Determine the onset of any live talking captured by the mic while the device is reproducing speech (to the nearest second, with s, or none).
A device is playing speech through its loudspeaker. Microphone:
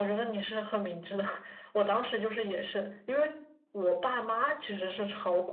none